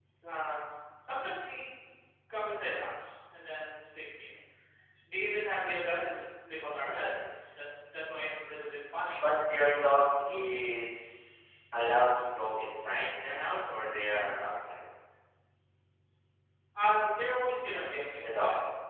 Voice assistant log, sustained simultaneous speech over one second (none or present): none